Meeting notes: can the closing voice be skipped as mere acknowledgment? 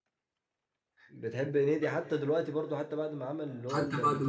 No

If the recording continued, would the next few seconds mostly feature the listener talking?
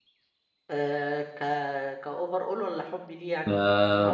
Yes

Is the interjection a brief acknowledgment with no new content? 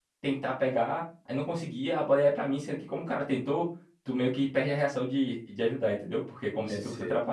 Yes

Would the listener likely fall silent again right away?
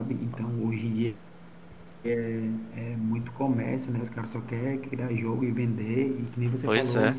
Yes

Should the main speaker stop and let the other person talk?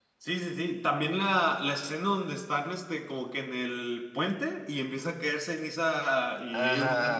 Yes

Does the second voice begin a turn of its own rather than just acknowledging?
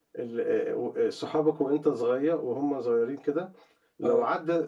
No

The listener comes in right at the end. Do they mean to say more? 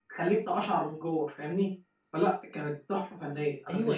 Yes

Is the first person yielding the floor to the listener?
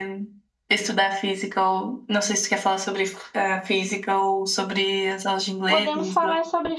Yes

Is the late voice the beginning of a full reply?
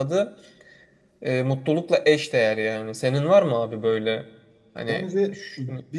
Yes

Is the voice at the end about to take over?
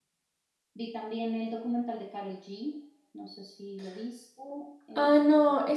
Yes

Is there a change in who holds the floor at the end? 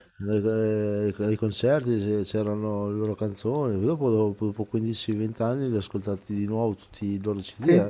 Yes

